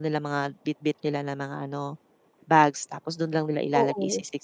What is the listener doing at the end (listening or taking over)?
listening